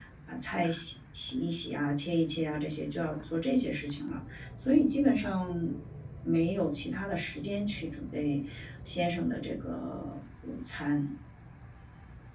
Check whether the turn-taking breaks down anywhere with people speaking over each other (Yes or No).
No